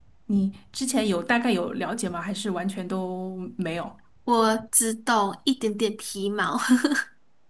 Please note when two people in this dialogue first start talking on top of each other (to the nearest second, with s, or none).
none